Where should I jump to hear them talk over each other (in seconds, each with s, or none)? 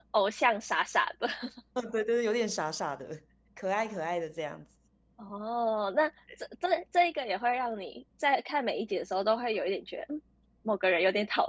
none